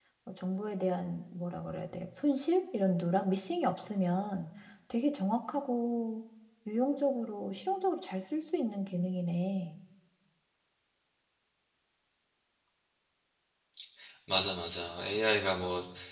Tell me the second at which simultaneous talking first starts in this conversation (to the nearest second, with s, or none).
none